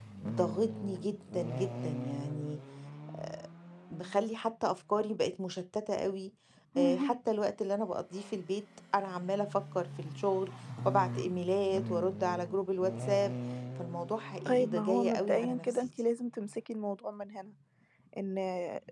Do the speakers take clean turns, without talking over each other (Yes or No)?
No